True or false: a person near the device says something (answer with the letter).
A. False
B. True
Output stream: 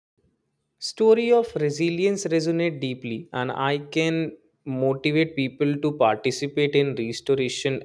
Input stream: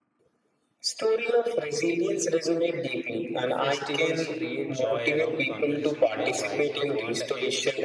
B